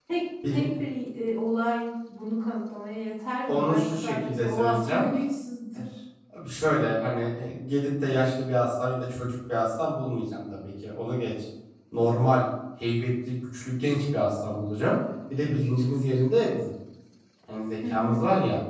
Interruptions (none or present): present